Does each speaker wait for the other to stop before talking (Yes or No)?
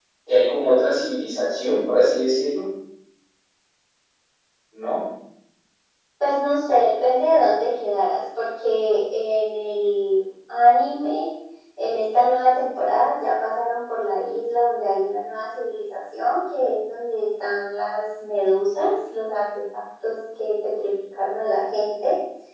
Yes